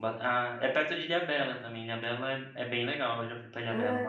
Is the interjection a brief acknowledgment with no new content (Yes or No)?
No